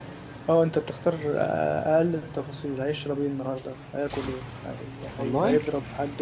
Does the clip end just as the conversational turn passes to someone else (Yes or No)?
No